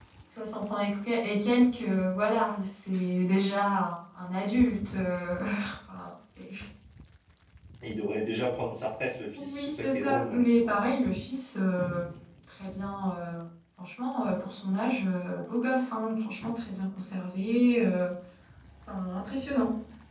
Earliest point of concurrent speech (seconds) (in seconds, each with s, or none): 9.4 s